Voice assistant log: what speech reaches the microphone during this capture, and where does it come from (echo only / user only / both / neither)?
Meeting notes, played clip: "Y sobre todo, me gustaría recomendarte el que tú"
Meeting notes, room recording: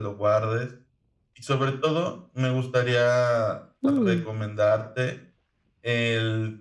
both